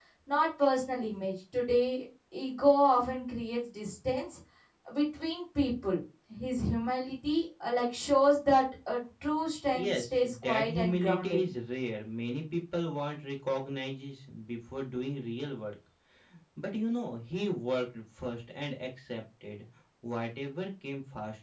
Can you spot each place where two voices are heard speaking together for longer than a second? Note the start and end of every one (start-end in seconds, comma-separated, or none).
9.7-11.4